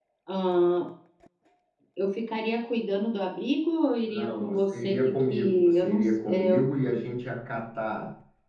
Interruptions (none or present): present